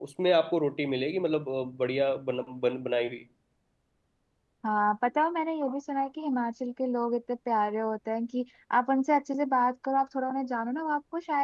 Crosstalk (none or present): none